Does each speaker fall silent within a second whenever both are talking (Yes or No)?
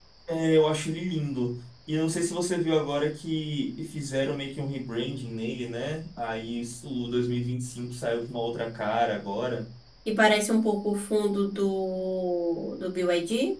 Yes